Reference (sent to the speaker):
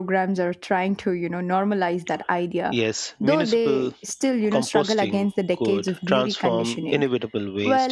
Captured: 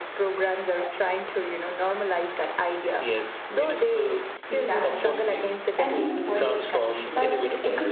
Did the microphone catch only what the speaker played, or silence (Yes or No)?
No